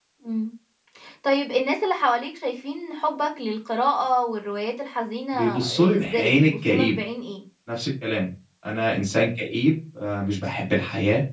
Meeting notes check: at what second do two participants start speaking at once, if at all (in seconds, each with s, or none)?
5.3 s